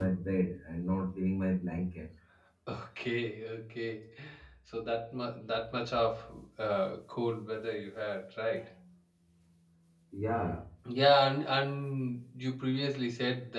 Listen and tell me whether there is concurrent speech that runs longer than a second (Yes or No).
No